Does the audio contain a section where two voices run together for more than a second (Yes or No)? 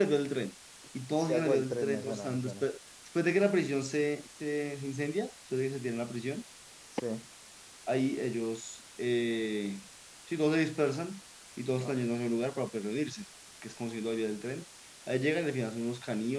Yes